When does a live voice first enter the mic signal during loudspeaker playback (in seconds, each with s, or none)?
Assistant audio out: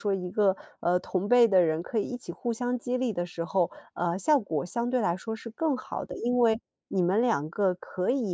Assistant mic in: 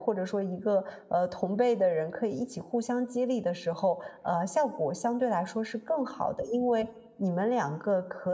none